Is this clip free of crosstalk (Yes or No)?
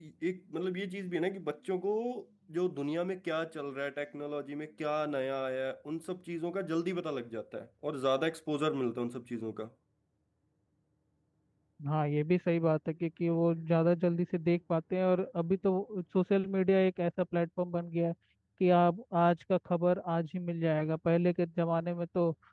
Yes